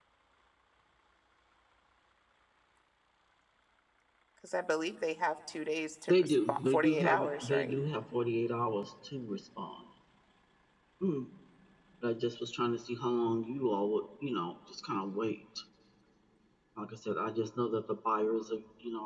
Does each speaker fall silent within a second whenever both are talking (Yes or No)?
No